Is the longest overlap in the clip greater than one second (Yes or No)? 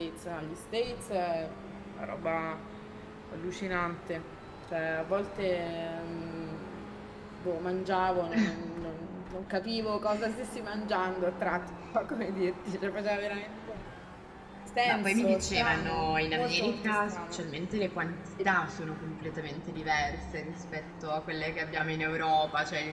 Yes